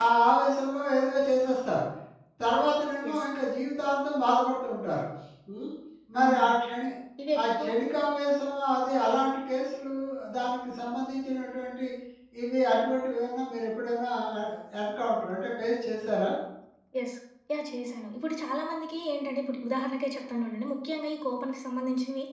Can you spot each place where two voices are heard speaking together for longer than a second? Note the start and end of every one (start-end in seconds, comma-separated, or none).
none